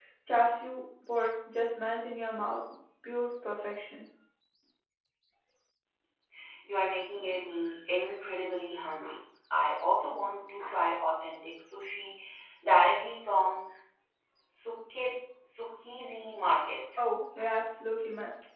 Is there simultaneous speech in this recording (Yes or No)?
No